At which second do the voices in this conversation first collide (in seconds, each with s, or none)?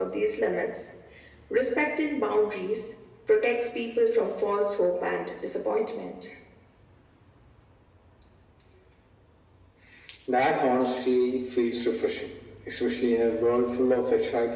none